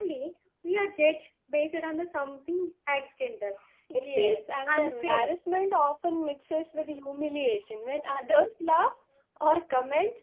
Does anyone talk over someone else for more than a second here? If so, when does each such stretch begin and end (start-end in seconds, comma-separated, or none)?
3.9-5.3